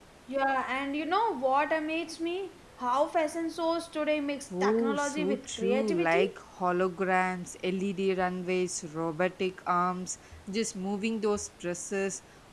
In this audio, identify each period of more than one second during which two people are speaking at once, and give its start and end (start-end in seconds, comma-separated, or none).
4.6-6.2